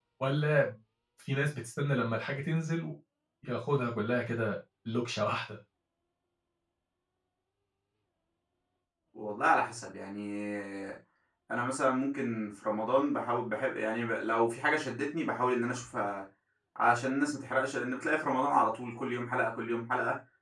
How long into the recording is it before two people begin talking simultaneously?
none

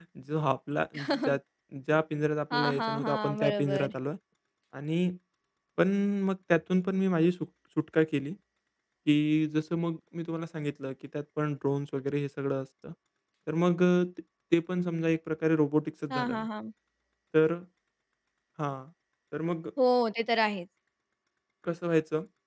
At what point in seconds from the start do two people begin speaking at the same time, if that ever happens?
2.5 s

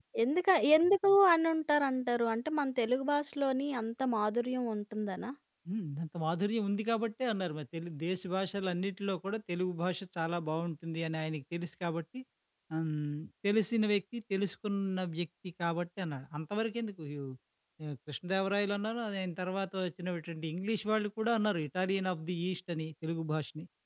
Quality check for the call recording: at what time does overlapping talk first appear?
none

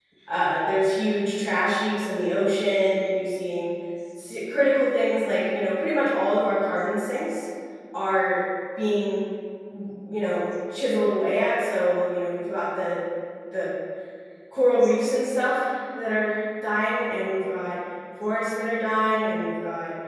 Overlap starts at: none

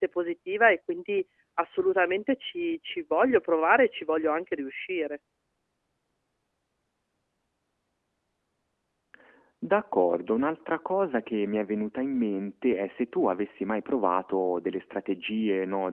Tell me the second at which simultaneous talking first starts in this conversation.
none

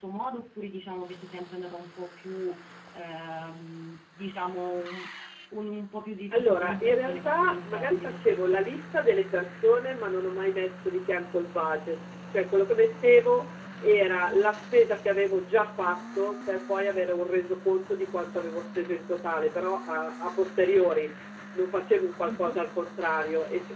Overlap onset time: 6.3 s

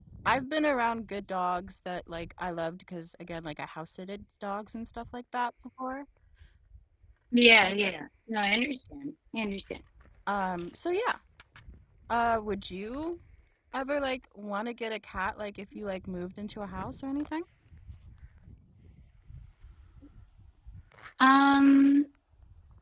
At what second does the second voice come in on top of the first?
none

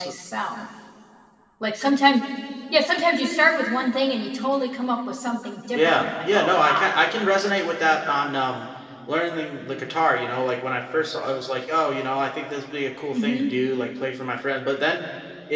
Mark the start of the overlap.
5.7 s

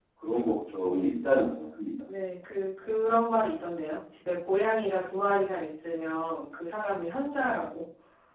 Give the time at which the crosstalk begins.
none

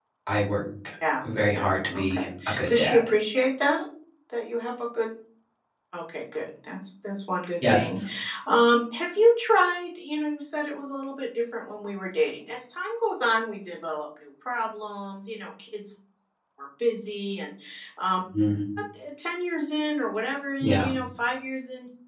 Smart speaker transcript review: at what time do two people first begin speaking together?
1.5 s

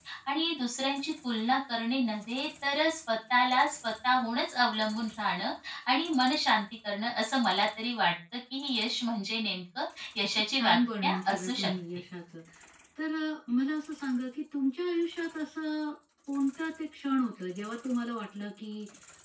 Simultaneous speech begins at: 10.3 s

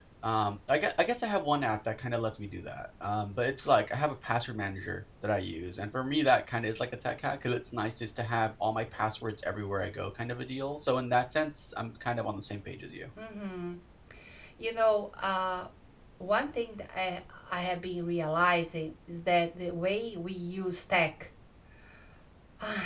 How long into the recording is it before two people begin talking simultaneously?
none

